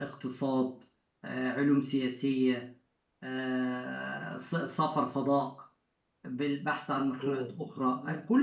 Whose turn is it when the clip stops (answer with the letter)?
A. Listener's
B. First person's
B